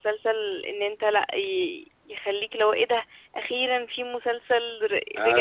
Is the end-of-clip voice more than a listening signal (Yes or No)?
Yes